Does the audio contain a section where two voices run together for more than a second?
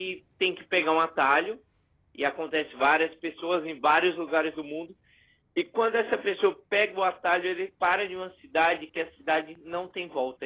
No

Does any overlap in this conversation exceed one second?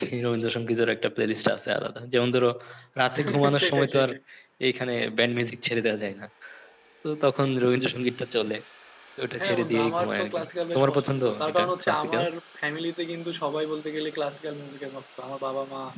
Yes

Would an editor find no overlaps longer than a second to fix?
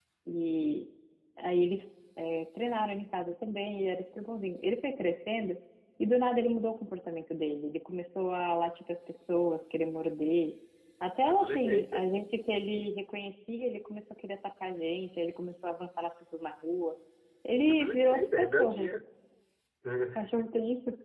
No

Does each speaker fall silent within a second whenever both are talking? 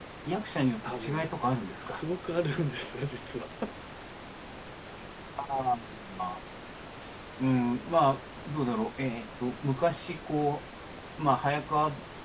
Yes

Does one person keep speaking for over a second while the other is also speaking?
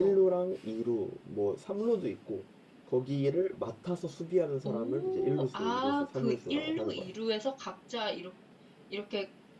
Yes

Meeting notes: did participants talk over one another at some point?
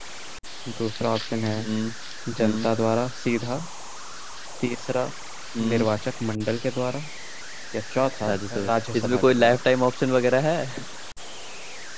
Yes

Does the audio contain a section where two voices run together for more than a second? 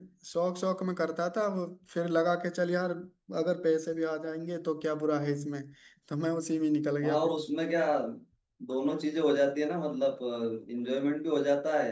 No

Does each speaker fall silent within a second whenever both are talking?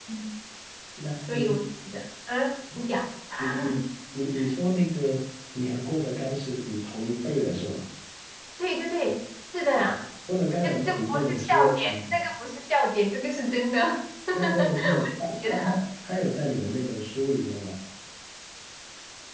No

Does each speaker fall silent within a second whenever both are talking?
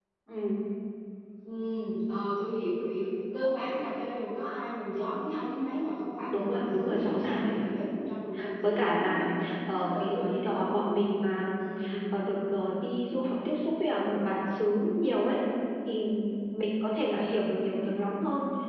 No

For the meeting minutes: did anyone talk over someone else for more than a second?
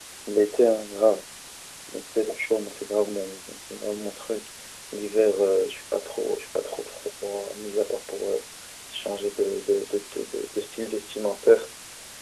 No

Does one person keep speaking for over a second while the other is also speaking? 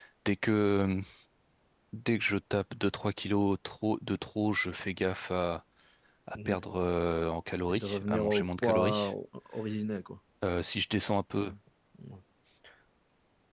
Yes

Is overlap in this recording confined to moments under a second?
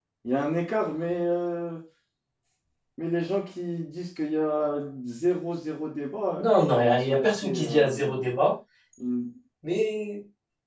No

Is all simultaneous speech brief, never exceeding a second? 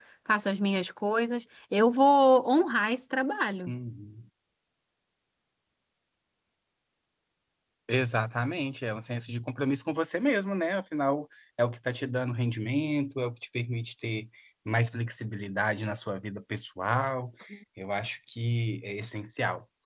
Yes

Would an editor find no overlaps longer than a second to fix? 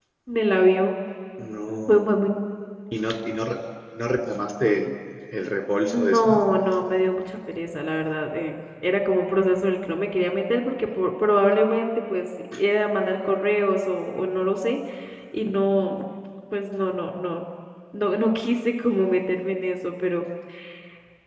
Yes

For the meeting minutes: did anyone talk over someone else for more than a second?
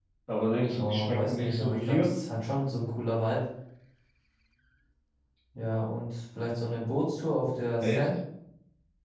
Yes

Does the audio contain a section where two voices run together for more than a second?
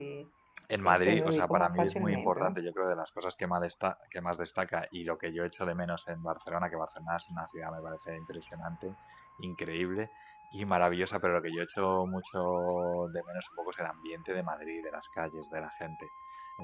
Yes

